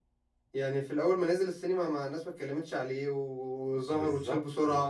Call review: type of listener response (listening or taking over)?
taking over